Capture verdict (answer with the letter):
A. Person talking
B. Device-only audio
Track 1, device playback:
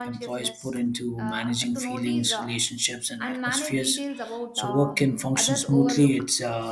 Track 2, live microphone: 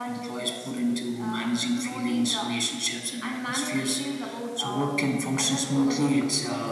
B